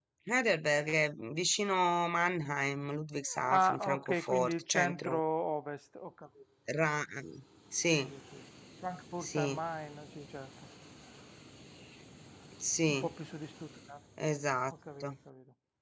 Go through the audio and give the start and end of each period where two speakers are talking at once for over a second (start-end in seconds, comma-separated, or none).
3.5-5.2